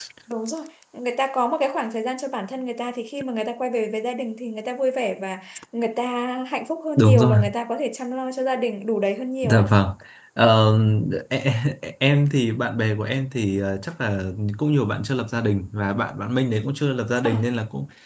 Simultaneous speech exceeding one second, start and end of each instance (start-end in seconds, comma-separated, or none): none